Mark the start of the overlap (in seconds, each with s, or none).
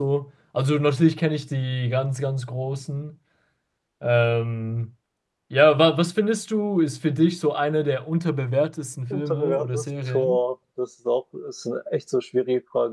9.1 s